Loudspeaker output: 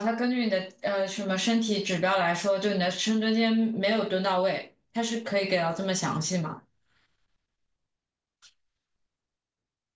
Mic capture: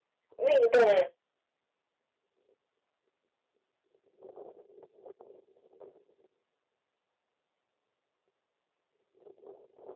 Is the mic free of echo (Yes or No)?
Yes